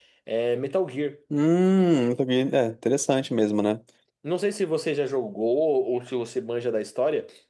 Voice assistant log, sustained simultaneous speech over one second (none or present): none